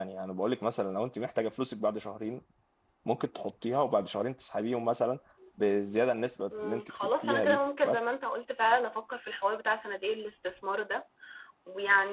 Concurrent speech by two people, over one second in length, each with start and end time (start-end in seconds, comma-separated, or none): 6.6-8.1